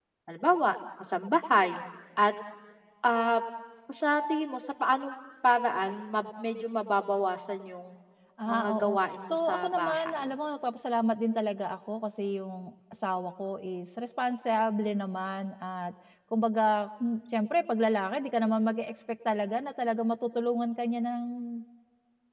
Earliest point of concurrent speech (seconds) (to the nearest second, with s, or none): 9 s